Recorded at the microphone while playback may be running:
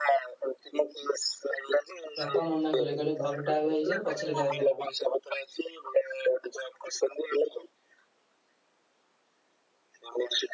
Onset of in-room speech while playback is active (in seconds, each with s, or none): 2.2 s